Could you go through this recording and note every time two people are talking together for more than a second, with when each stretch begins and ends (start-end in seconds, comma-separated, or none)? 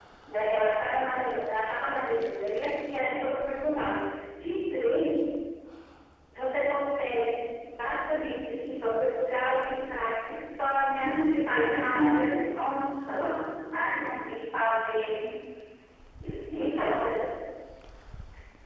11.0-12.4